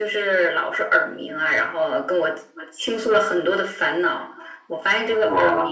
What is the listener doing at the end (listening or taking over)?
listening